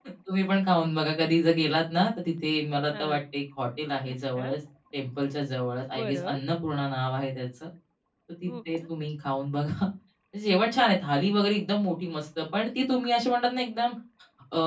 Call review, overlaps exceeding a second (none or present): none